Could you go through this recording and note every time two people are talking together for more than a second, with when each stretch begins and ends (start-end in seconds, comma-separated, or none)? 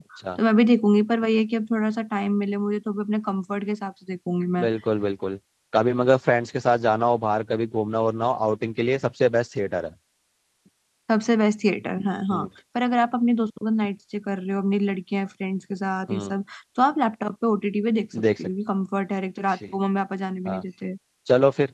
none